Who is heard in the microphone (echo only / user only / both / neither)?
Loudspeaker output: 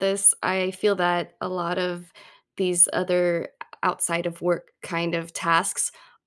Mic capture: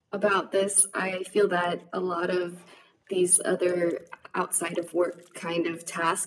echo only